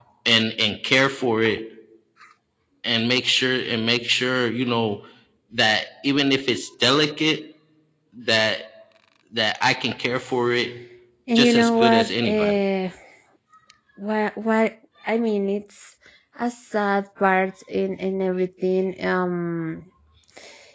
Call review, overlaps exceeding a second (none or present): present